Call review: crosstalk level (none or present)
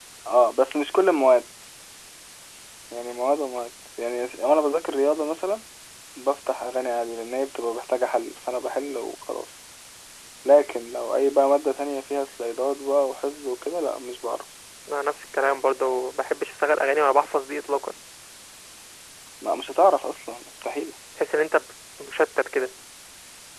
none